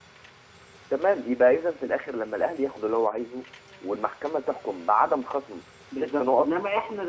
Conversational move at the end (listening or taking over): taking over